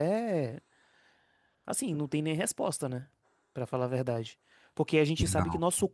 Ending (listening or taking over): listening